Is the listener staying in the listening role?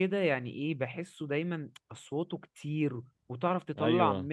Yes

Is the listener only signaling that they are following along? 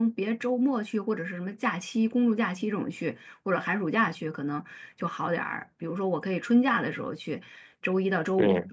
Yes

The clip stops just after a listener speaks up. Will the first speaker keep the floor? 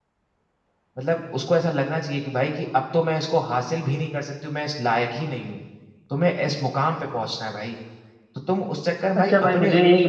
No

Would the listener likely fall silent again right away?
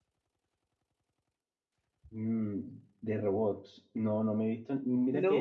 Yes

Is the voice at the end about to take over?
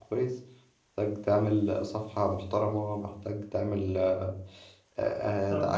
Yes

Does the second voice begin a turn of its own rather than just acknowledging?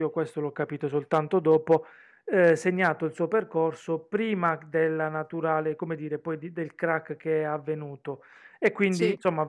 No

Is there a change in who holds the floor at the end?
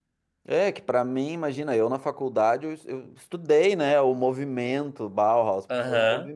No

